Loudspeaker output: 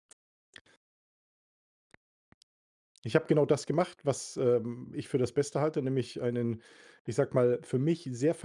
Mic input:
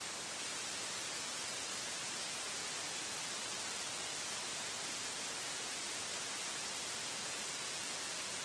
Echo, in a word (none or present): none